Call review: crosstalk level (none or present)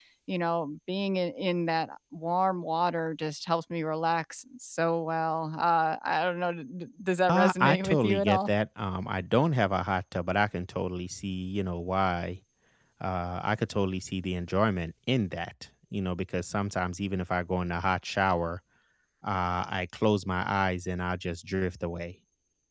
present